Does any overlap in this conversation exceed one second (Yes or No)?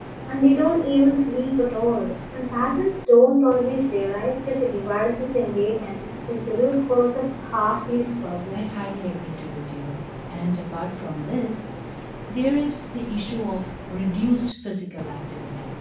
No